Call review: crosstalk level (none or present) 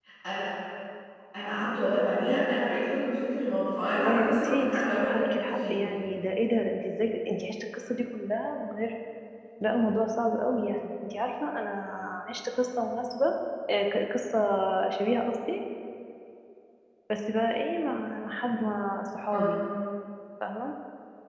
present